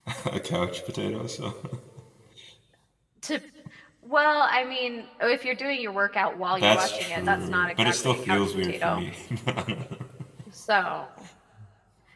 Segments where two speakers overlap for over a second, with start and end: 6.5-9.0

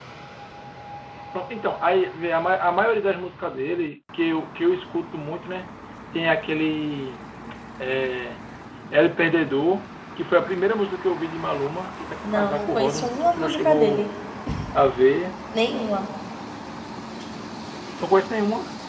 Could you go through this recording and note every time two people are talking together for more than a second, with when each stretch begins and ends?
12.2-14.1

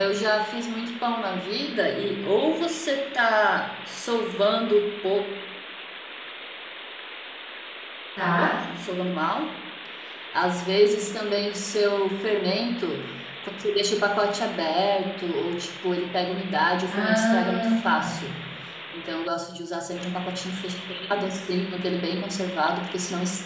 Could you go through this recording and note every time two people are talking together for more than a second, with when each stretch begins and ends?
16.9-18.2

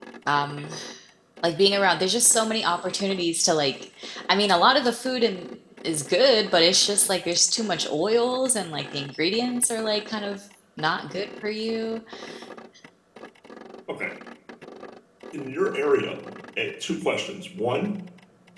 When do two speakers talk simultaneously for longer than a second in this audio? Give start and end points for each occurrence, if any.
none

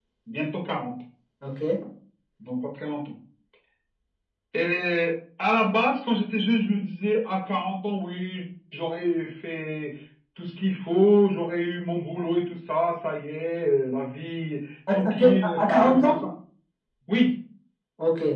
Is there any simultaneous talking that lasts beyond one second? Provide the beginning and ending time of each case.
14.9-16.2

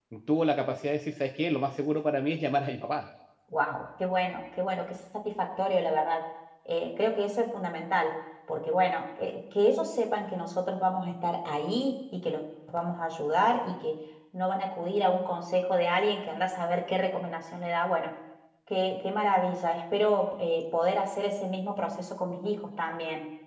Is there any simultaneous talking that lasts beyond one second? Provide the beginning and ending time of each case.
none

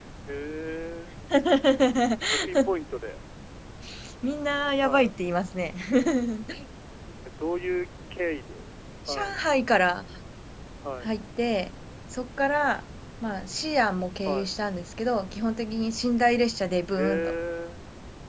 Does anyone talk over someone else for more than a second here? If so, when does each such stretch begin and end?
none

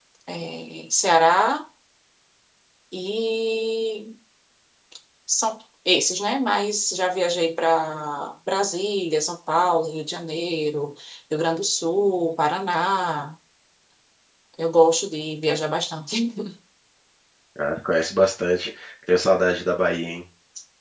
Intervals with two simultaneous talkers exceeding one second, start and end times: none

